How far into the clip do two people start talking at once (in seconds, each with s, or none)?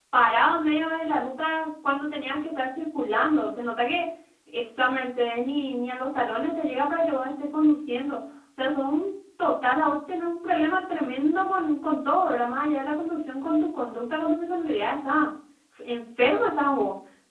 none